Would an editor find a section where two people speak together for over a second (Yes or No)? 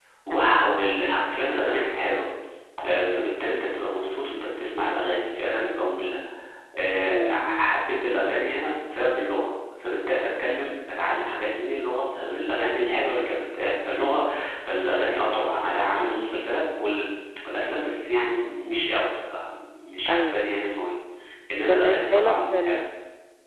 Yes